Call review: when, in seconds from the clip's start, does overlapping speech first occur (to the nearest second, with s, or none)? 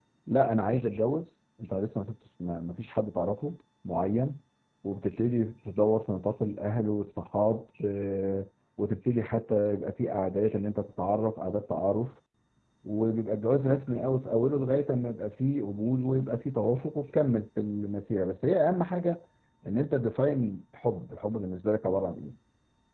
none